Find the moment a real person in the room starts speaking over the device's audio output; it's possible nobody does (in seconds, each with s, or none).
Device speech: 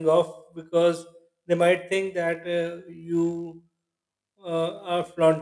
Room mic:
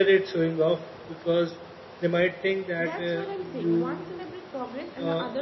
2.8 s